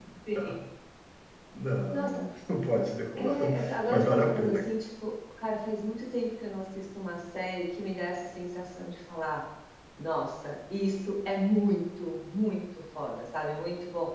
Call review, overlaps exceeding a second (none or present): present